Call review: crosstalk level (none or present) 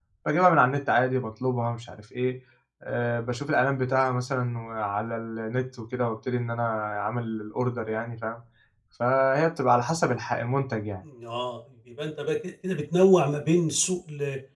none